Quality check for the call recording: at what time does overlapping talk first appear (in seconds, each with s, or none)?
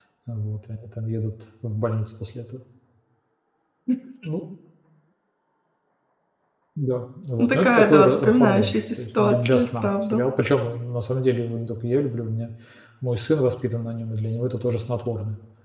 7.4 s